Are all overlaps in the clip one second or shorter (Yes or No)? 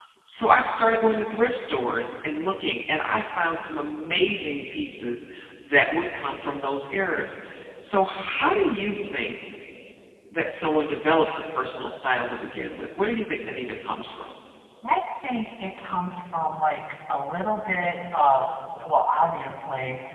Yes